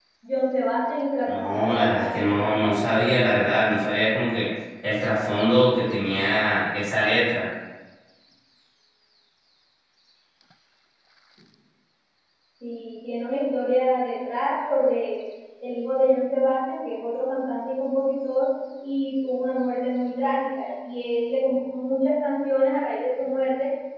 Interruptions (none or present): present